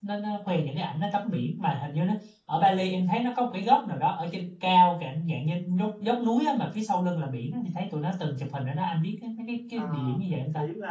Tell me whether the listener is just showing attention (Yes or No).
No